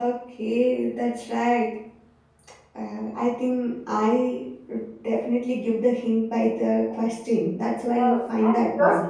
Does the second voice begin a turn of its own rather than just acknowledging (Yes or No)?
Yes